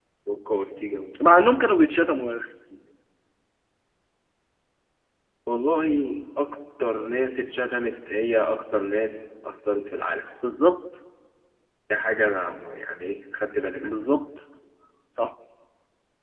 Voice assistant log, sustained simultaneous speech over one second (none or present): none